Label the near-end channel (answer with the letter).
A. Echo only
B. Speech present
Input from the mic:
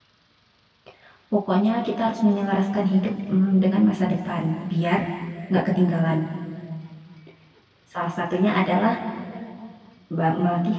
B